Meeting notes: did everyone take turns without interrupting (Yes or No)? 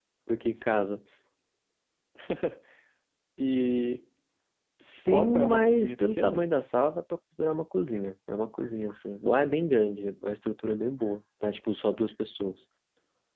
No